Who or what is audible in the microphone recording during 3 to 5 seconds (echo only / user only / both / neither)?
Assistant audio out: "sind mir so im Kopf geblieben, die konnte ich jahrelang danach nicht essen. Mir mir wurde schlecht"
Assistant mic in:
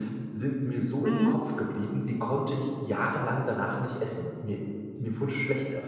echo only